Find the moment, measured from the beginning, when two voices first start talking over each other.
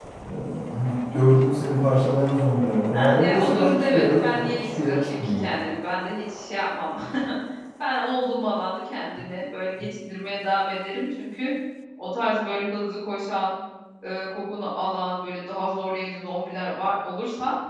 2.9 s

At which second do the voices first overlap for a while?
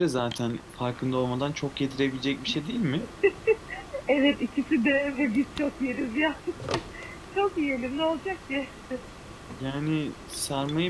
none

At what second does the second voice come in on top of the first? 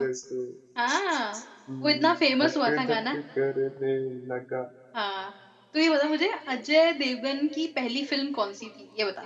1.8 s

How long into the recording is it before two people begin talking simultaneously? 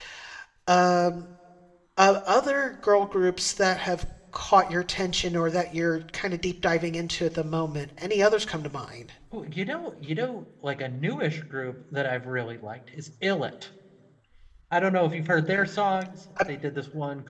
none

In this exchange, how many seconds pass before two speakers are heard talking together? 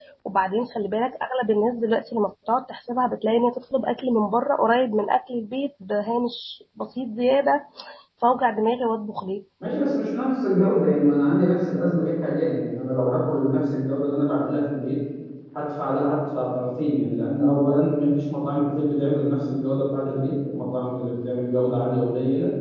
none

